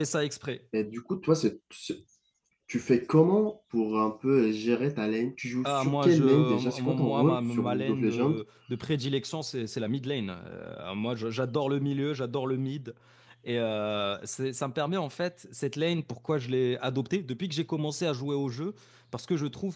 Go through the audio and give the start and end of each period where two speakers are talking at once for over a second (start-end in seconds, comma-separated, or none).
5.7-8.3